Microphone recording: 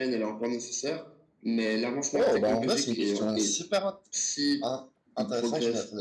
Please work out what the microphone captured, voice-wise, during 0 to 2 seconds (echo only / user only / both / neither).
echo only